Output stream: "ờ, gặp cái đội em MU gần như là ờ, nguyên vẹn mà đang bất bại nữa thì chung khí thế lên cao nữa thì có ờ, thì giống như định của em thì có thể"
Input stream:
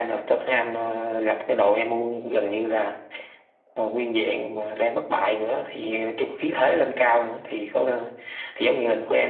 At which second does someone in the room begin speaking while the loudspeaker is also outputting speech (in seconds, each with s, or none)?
none